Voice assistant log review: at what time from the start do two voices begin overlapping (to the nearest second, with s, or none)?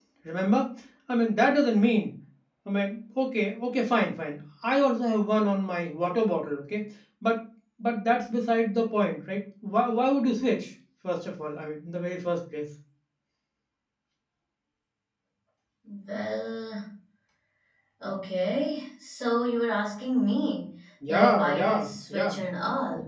21 s